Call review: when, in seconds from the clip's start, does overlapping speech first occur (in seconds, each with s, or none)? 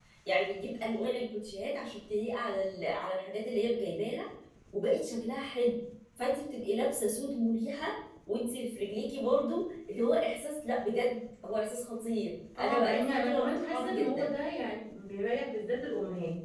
12.6 s